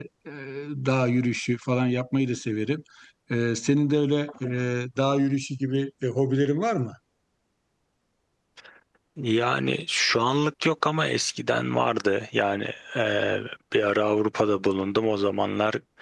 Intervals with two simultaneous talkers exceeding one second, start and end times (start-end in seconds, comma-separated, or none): none